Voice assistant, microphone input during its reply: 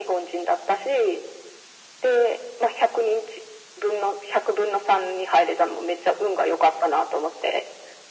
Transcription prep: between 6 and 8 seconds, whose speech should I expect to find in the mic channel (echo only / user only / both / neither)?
echo only